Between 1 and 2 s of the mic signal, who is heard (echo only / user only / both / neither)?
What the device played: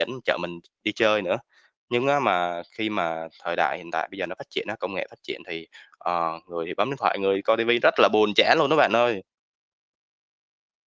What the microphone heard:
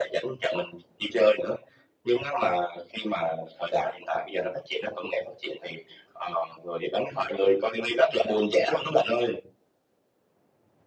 echo only